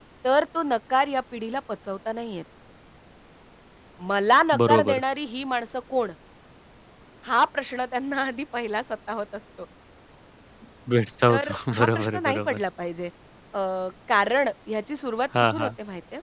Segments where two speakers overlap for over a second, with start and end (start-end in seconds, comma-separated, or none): 11.3-12.6